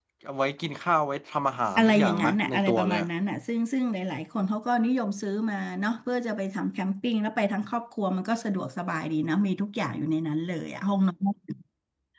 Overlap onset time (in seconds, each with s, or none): 1.8 s